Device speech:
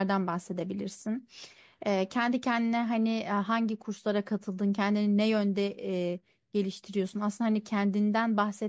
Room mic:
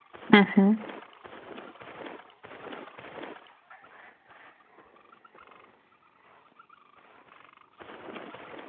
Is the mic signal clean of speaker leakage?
Yes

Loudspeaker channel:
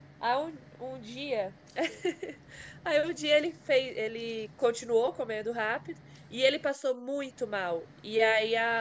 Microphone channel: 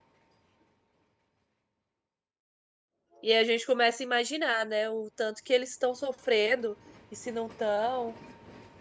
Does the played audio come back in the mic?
No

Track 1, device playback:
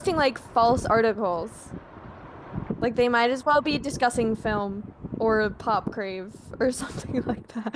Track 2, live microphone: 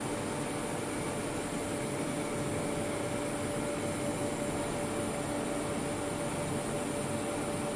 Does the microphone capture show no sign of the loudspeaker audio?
Yes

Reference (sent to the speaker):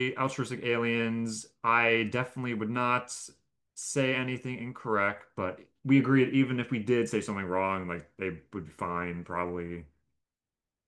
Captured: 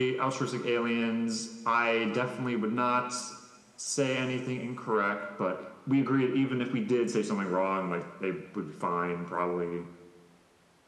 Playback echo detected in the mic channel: Yes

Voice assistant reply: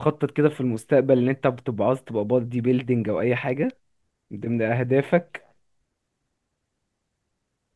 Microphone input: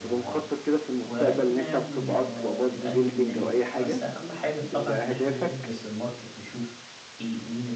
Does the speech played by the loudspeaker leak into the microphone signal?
Yes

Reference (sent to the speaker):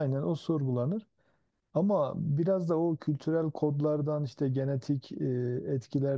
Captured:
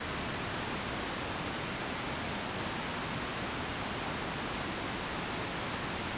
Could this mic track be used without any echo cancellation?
Yes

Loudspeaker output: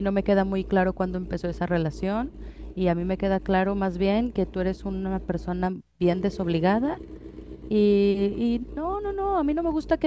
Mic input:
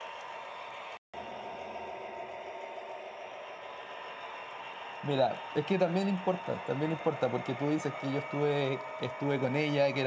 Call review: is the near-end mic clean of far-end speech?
Yes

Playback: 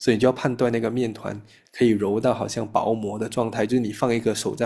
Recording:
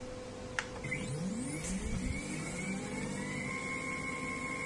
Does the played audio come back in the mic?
No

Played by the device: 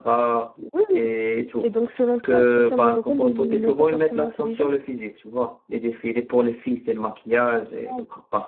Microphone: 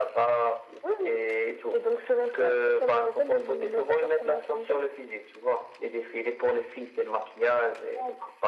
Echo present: Yes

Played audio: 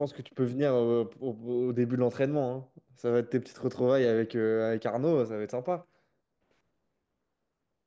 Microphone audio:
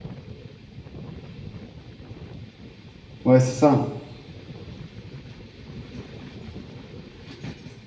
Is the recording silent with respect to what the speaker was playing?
Yes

